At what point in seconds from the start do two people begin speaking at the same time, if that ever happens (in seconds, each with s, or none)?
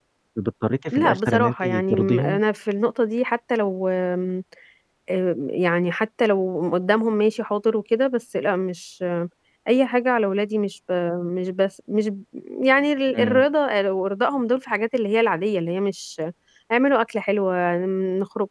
0.9 s